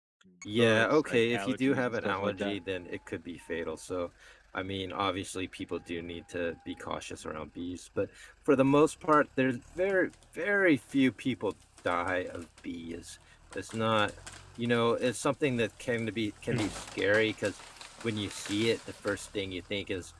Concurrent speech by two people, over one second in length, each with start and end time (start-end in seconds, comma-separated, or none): 0.6-2.6